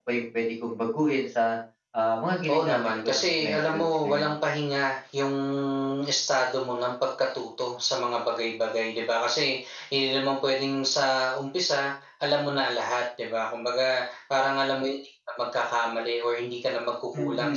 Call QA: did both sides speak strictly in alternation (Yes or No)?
No